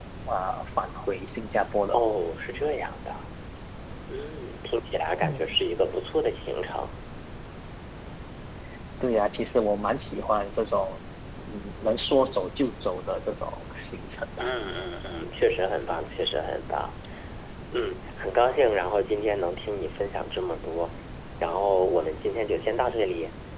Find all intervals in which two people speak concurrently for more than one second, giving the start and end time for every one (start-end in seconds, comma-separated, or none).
none